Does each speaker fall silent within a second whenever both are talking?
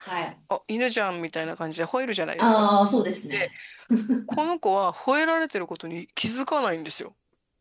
Yes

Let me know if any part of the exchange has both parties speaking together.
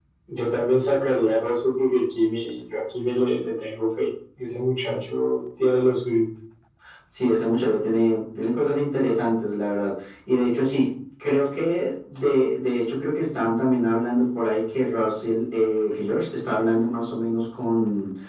No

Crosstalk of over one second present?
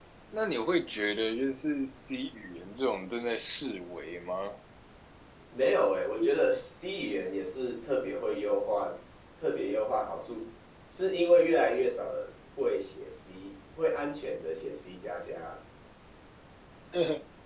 No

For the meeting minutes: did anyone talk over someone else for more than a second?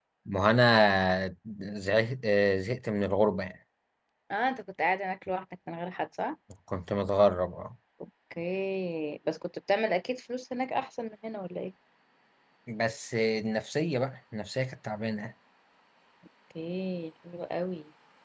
No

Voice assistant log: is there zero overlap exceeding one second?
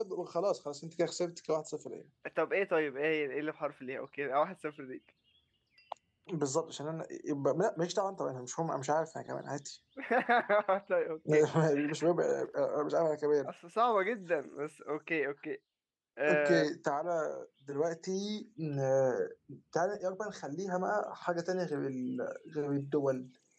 Yes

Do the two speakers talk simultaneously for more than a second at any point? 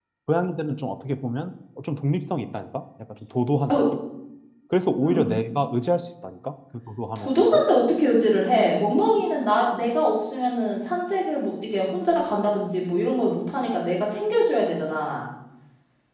No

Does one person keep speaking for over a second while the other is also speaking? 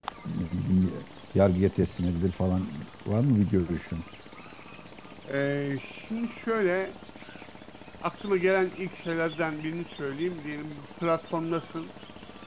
No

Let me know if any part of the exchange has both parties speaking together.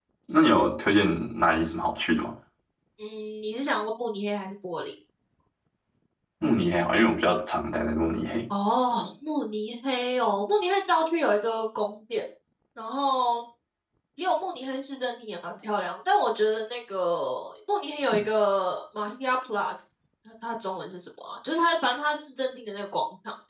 No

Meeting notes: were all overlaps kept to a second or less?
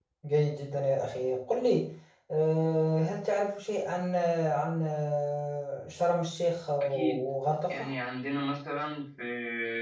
Yes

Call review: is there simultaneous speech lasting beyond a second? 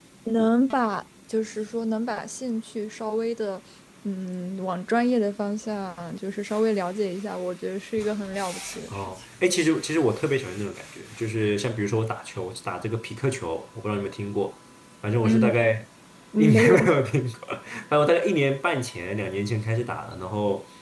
No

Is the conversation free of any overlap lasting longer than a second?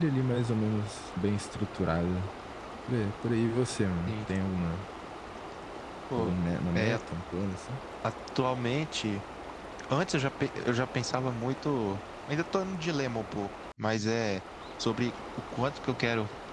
Yes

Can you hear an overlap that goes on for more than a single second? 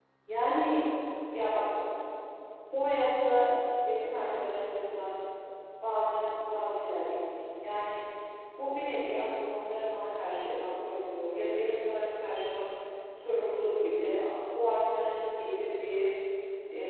No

